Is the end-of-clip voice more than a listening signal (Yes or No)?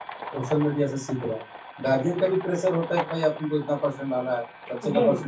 No